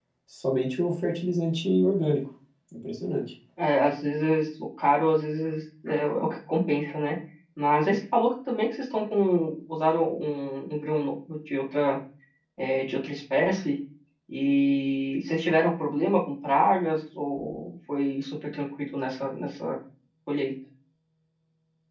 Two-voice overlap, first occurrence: none

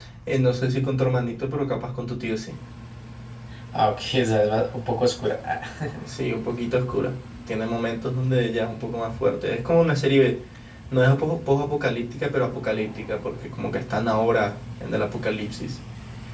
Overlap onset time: none

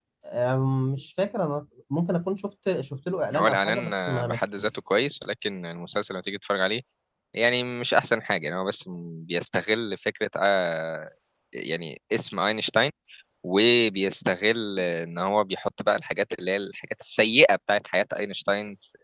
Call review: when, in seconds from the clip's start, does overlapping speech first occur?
3 s

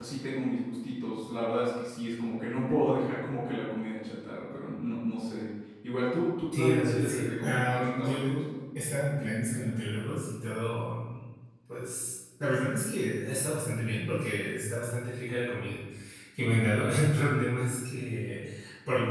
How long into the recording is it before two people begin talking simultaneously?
7 s

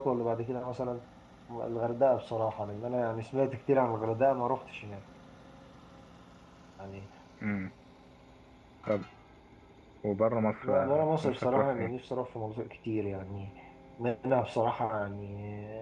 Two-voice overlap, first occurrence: 11 s

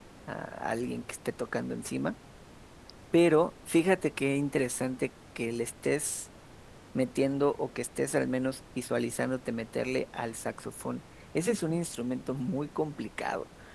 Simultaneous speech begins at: none

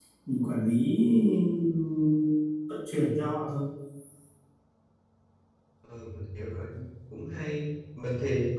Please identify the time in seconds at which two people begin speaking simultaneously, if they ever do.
none

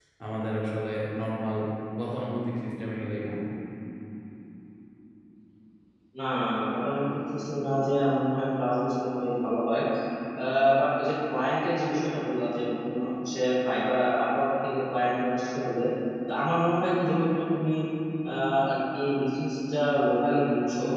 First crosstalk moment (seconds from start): none

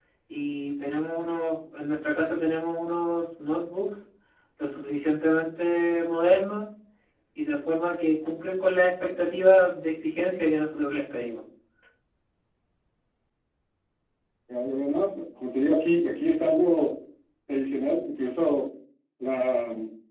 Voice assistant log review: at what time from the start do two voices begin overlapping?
none

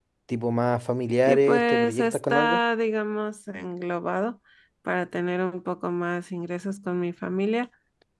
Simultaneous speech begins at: 1 s

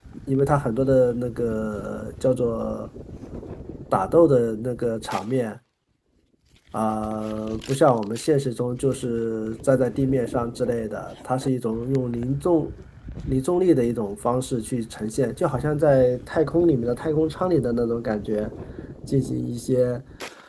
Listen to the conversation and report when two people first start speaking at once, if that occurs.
none

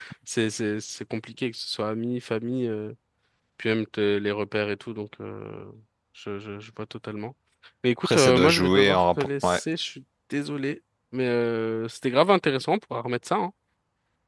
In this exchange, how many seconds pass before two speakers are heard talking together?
8 s

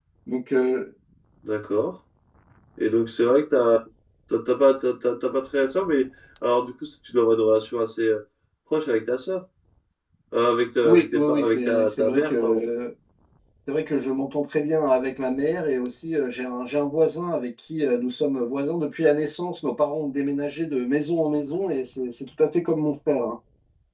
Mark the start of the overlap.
11 s

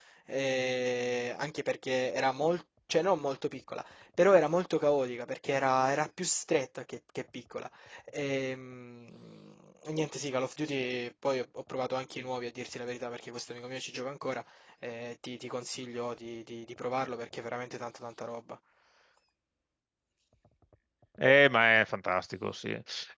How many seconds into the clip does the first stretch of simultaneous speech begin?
none

